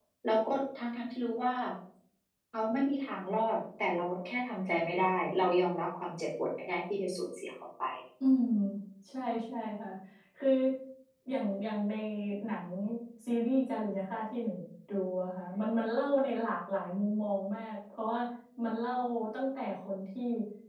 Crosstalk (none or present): none